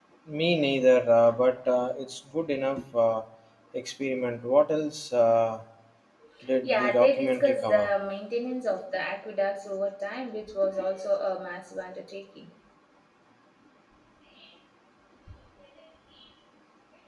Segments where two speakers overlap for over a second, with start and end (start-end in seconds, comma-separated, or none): 6.6-7.9